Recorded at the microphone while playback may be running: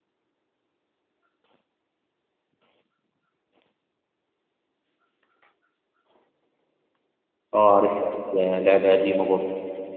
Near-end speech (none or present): present